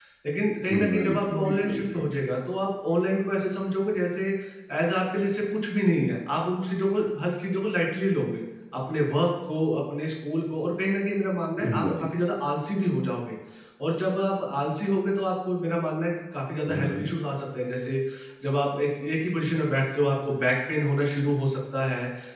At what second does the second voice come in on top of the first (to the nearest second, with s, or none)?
1 s